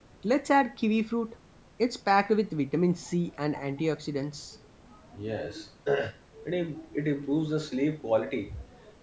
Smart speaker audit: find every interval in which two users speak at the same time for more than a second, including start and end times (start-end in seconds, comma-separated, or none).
none